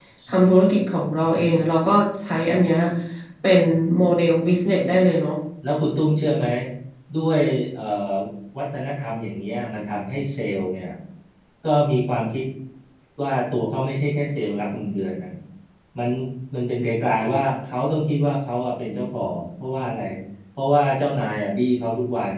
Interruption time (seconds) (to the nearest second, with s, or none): none